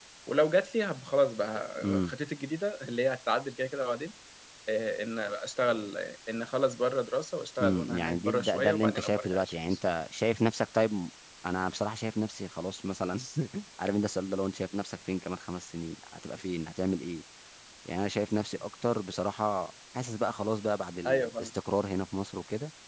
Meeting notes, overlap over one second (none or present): present